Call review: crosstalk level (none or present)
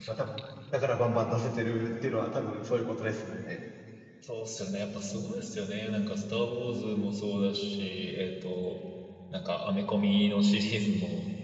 none